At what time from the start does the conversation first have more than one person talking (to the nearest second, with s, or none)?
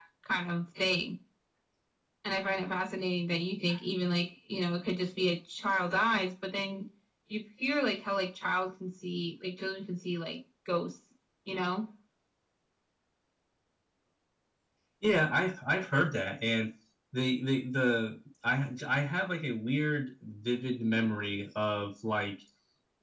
none